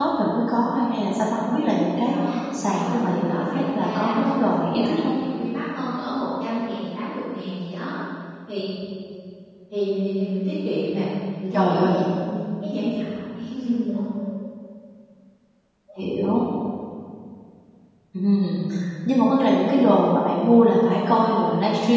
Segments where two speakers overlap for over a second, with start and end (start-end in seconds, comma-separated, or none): 2.1-5.1